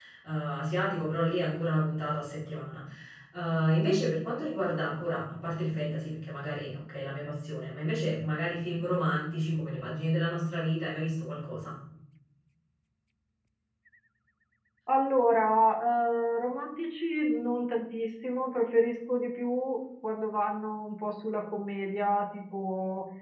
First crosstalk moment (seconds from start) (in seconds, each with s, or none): none